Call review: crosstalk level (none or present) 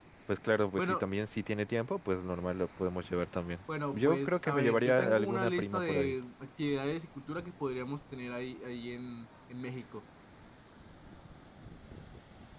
present